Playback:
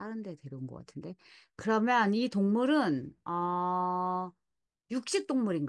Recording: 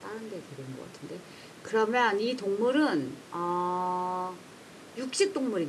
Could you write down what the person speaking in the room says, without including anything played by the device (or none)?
none